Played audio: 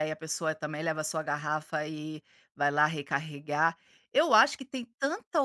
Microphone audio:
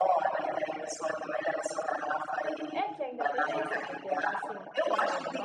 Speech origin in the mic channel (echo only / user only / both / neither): both